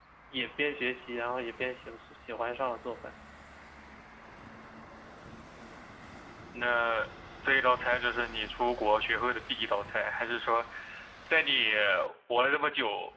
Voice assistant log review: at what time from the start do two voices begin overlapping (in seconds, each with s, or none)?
none